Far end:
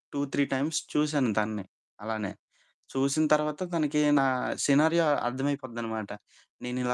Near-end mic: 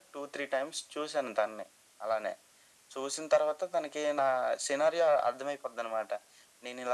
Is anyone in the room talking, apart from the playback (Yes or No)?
No